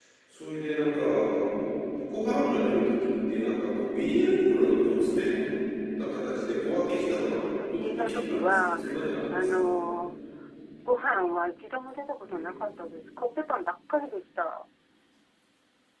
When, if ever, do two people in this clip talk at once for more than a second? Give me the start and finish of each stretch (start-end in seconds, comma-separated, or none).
7.3-8.8